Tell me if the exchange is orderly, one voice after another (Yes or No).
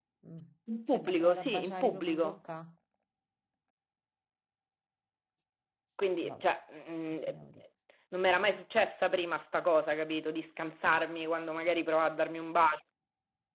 No